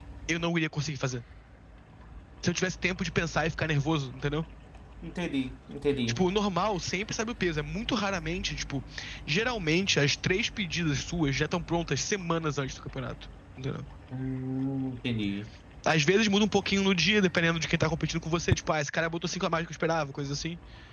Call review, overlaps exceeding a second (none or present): none